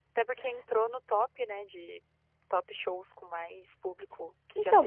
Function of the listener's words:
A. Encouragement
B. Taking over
B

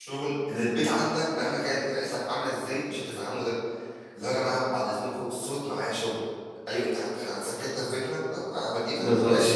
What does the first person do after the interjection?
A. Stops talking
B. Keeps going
A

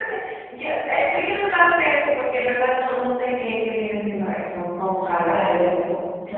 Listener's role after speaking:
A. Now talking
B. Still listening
A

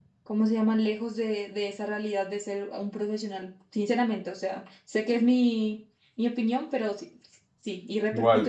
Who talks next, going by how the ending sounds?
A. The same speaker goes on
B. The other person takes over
B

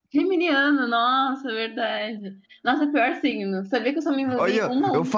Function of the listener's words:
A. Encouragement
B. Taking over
B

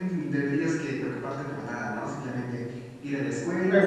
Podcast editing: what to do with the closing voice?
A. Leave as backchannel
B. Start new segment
A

